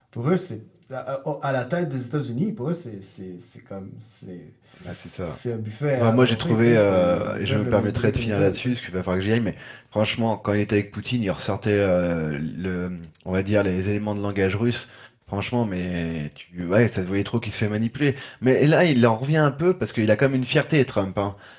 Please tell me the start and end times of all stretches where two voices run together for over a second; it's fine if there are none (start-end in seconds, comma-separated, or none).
6.0-8.7